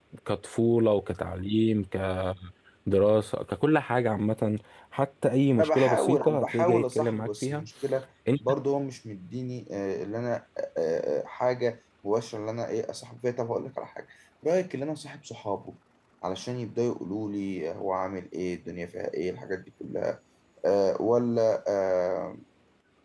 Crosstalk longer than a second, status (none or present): present